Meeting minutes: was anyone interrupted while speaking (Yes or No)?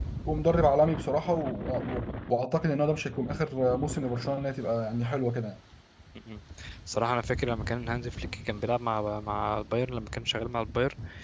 No